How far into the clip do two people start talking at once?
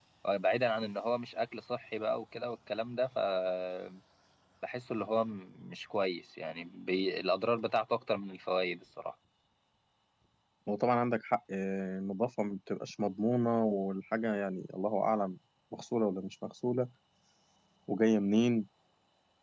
none

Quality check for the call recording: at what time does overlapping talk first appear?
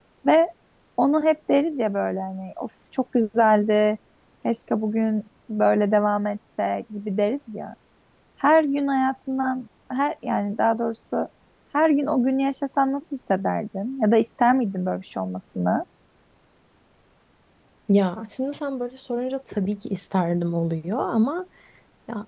none

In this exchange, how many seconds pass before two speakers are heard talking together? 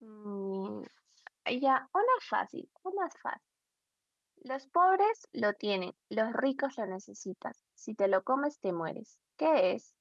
none

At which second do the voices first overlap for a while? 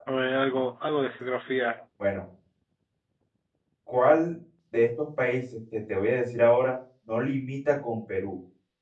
none

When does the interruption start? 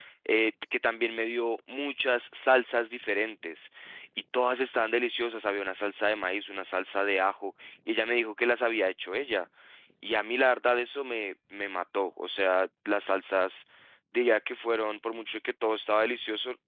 none

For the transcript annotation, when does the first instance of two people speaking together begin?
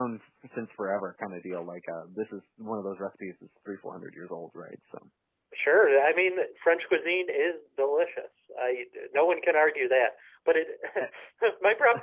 none

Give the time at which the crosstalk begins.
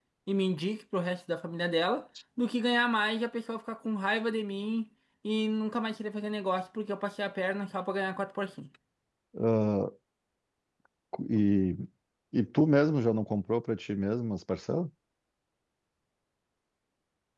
none

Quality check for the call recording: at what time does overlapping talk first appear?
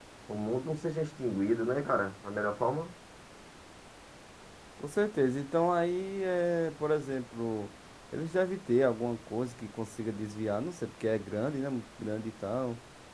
none

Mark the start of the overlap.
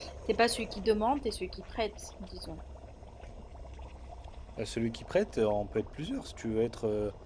none

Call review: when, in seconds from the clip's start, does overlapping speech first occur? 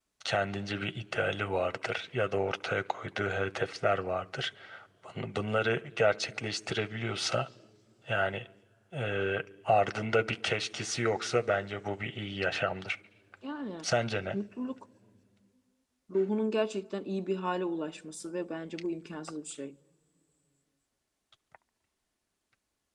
none

